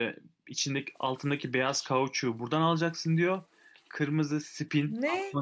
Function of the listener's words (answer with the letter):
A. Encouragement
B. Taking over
A